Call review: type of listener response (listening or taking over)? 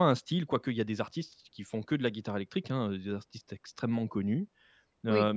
listening